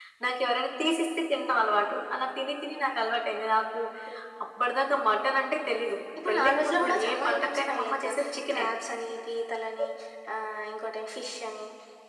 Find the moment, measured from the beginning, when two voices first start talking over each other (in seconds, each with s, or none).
6.2 s